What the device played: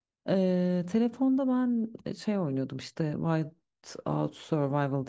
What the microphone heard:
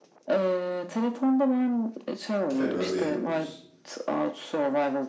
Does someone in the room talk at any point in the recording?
Yes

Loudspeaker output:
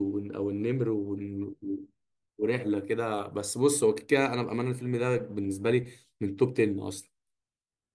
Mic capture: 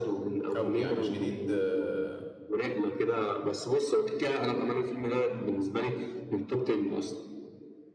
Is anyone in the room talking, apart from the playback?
Yes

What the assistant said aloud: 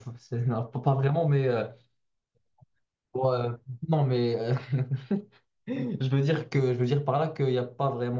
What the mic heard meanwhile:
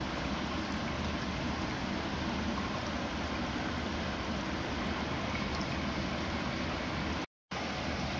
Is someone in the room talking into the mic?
No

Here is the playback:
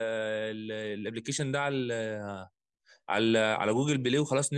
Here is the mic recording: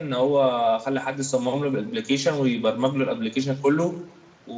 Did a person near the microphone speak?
Yes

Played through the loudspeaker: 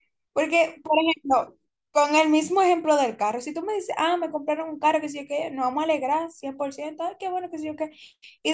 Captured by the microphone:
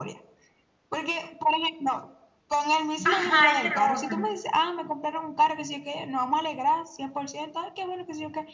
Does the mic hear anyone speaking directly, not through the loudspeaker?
Yes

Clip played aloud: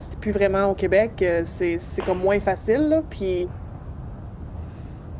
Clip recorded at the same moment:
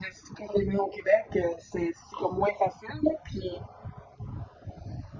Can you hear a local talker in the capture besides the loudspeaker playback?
No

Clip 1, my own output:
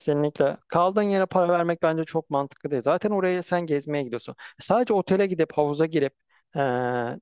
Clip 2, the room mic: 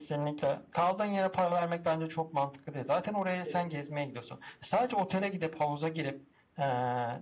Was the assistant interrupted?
Yes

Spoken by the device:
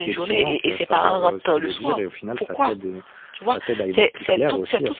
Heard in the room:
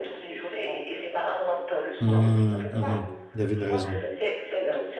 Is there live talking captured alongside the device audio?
Yes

